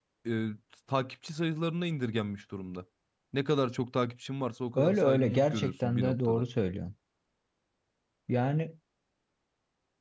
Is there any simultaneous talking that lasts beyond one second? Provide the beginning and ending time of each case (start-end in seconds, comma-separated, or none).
4.8-6.4